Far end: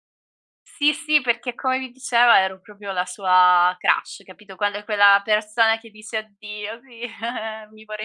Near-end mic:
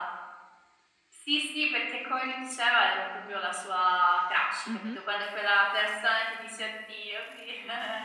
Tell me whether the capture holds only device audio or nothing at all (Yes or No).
No